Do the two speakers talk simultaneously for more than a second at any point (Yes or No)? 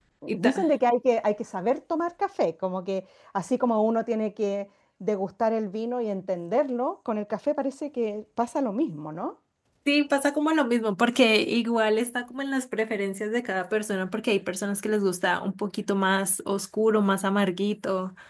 No